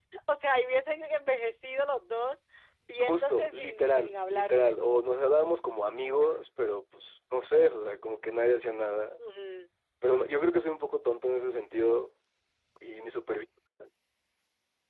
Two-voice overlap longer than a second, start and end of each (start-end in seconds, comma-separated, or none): 3.0-4.7